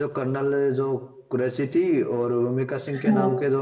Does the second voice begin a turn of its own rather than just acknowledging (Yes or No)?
No